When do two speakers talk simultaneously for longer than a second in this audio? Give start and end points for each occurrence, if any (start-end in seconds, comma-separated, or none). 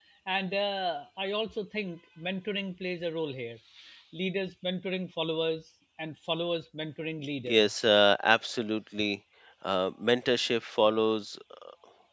none